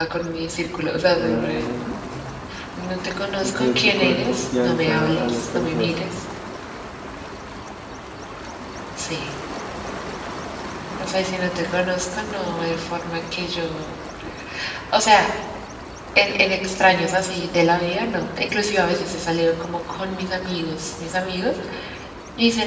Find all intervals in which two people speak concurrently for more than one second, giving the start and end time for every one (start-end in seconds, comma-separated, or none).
3.4-6.0